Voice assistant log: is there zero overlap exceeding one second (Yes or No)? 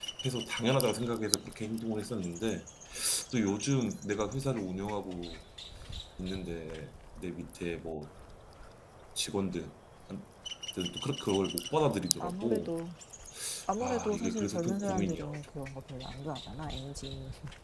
No